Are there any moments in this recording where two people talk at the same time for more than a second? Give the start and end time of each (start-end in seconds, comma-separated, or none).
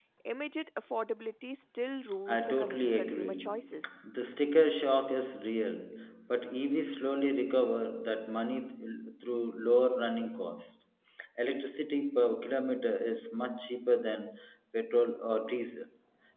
2.3-4.0